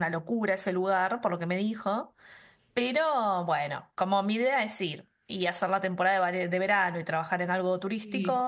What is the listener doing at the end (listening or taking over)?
listening